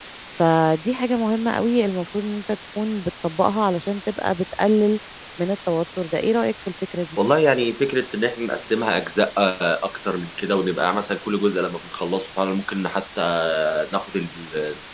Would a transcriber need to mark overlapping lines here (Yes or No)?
No